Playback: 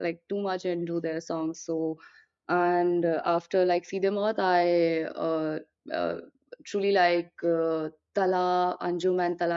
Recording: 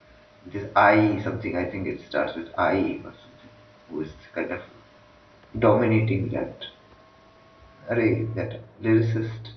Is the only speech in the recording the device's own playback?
No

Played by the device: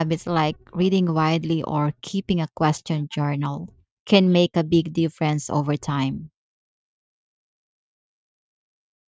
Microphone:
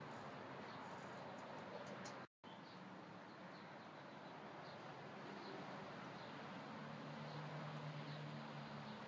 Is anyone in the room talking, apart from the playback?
No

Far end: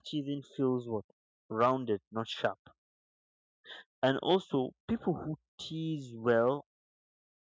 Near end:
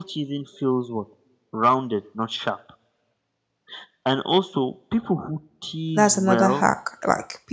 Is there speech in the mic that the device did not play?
Yes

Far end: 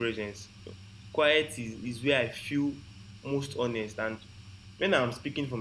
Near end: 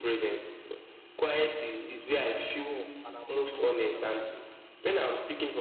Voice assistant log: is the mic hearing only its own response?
No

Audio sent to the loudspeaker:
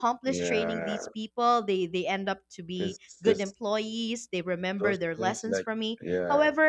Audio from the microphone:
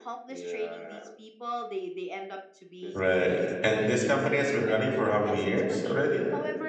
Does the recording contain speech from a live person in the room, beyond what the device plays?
Yes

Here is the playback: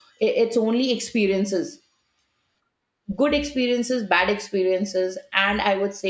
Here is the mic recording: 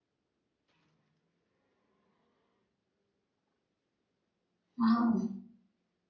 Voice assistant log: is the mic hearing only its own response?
No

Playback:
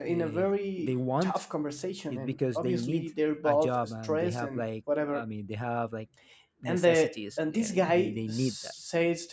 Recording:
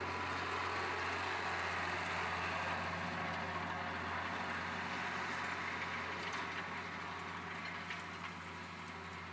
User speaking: No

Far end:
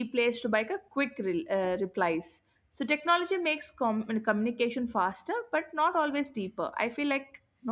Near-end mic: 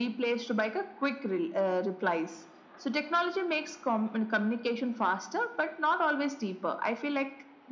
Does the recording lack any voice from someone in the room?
Yes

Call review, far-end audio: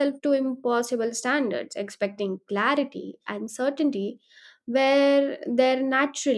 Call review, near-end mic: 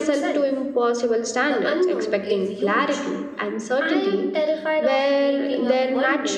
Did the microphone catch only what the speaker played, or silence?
No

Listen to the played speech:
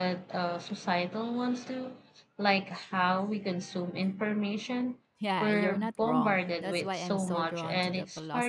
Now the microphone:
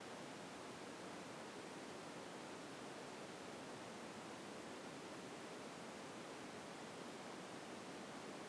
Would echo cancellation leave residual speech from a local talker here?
No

